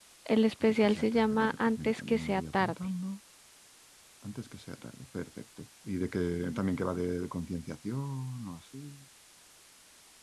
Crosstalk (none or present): present